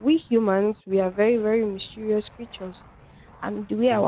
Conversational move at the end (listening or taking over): listening